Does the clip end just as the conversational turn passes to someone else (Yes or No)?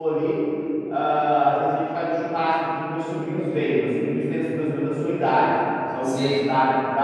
No